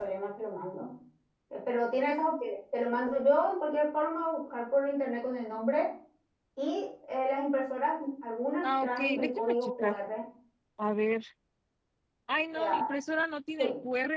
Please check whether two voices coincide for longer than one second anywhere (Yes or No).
Yes